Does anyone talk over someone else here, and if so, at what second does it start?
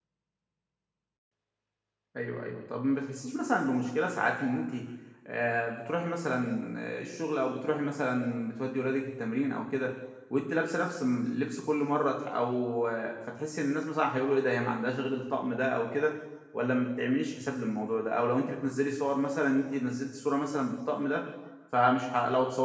none

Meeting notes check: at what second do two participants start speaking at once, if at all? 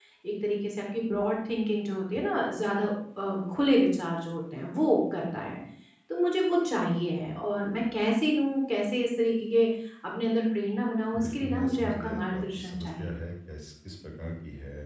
11.1 s

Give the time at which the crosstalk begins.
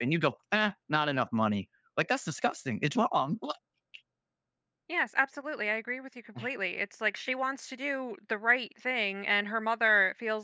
none

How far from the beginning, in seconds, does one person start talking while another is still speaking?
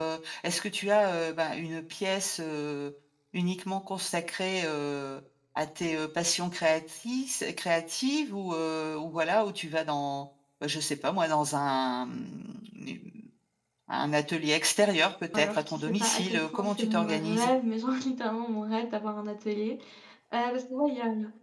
15.3 s

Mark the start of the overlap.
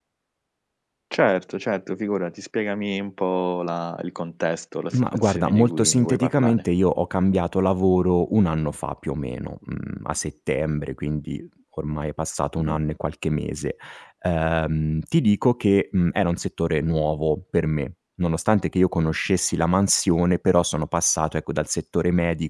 4.9 s

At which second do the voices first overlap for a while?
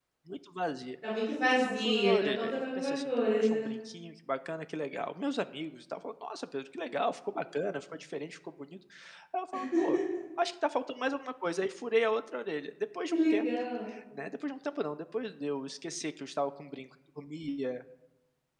1.5 s

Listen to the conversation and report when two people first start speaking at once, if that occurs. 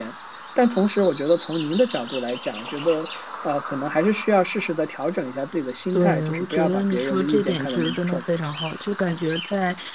5.9 s

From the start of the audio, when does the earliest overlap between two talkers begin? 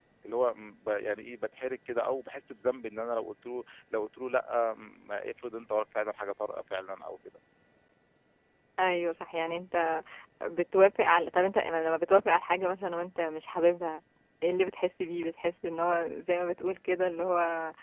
none

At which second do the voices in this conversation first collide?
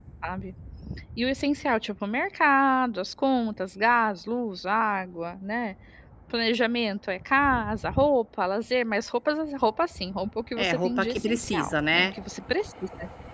10.6 s

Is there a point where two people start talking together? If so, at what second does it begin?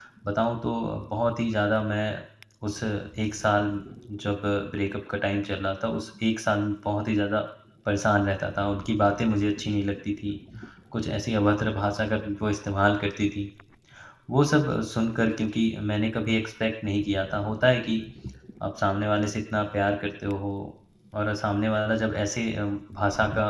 none

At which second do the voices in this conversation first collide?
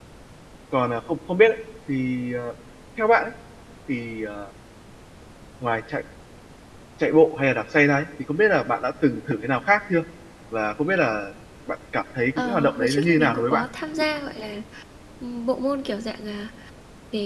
12.4 s

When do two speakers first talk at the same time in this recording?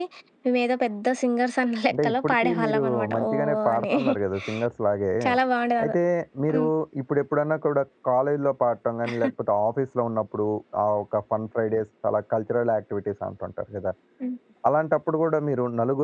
1.9 s

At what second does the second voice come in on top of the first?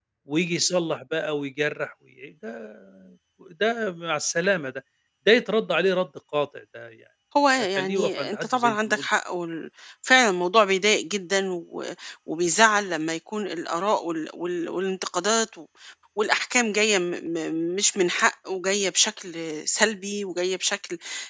7.8 s

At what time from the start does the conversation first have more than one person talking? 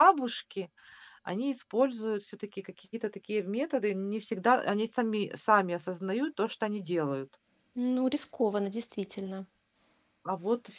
none

